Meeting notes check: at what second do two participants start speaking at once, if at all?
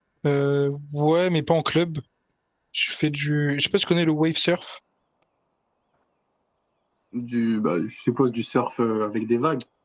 none

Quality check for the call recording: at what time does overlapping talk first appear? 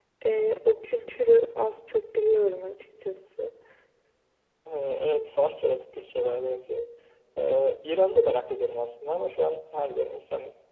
none

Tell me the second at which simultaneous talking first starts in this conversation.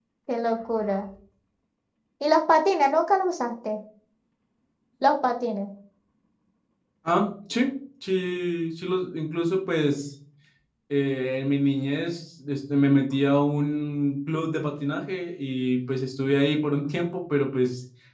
none

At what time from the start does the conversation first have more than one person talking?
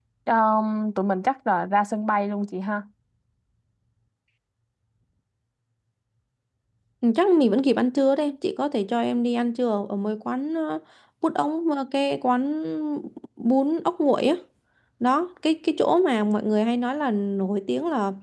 none

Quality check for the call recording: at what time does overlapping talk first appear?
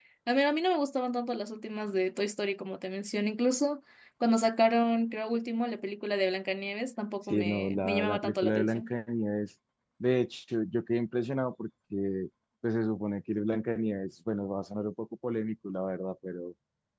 7 s

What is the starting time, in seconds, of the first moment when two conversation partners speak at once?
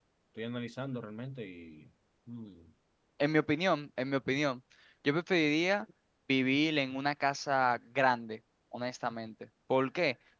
none

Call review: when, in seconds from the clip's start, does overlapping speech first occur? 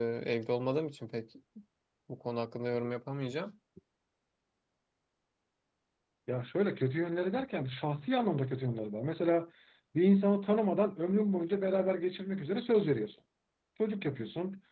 none

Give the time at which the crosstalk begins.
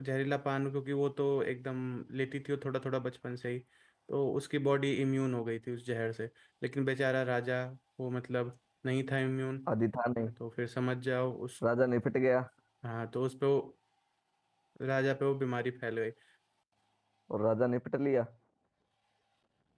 none

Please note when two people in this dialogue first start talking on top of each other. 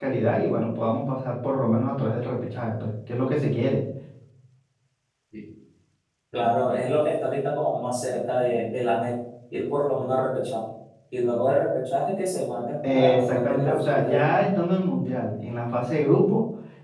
13 s

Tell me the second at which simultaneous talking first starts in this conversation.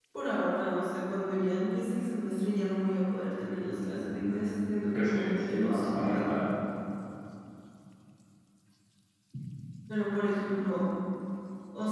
5 s

